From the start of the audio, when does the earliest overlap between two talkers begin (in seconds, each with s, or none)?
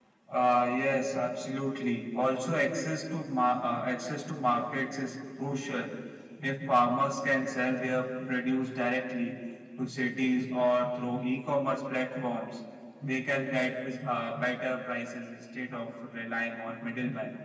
none